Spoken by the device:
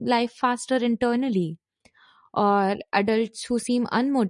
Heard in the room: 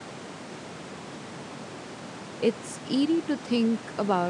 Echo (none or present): none